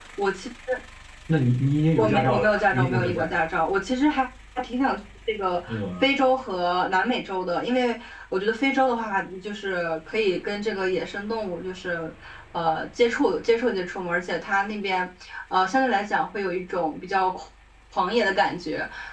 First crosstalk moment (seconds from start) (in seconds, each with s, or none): 2.0 s